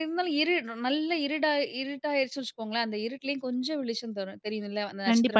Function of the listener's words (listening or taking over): taking over